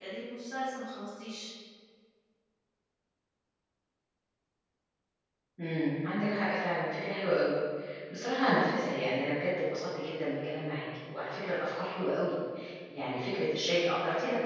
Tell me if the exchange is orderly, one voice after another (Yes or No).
Yes